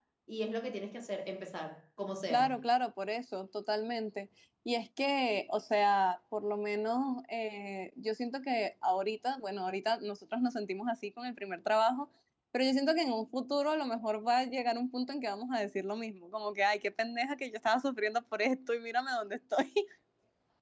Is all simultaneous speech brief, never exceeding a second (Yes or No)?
Yes